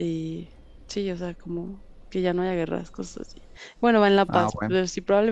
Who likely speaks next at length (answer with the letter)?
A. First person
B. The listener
A